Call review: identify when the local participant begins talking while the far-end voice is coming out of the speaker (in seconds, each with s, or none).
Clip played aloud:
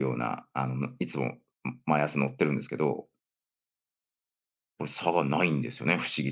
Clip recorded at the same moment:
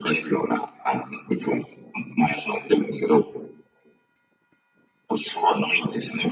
none